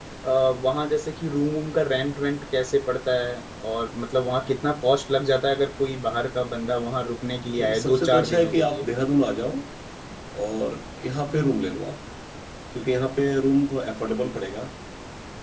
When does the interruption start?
8 s

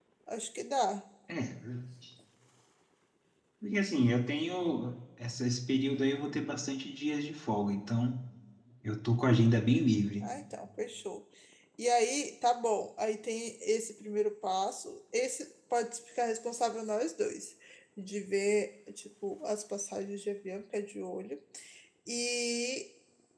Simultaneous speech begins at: none

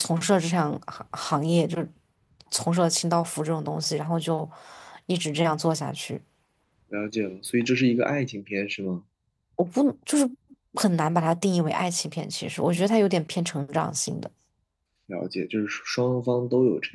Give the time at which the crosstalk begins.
none

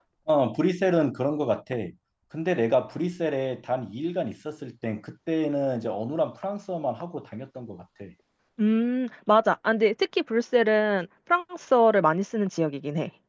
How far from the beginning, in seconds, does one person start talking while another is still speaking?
none

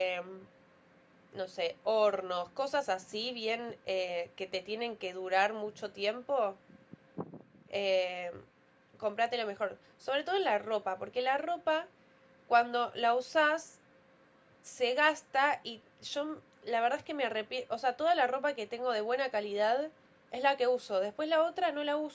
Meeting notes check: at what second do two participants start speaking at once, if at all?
none

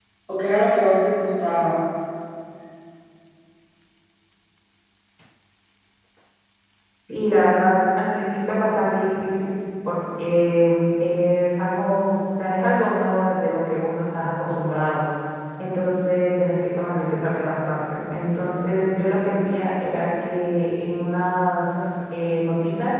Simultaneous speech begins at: none

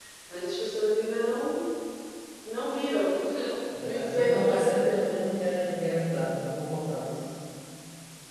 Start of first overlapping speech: 4 s

